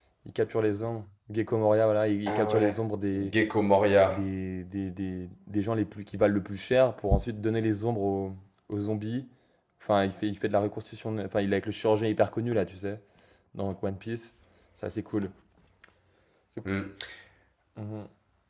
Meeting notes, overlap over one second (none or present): none